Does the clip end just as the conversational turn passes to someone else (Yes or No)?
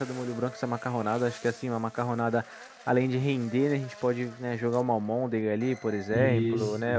No